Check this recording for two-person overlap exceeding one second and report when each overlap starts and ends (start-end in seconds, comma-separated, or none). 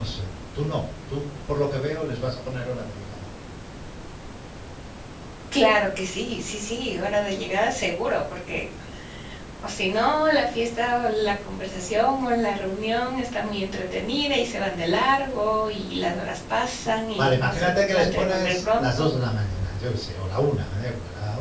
17.2-19.1